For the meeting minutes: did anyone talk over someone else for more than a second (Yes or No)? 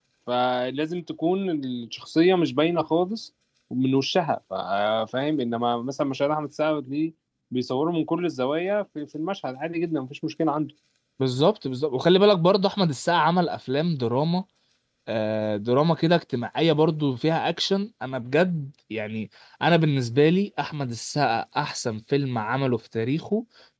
No